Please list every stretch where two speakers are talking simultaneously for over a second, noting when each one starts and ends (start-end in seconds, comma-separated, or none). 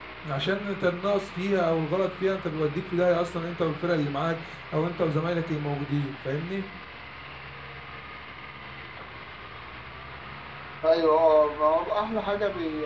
none